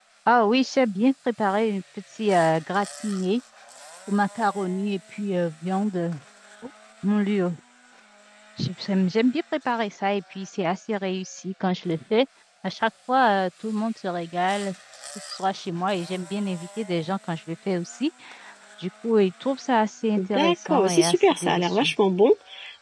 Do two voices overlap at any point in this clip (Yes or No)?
Yes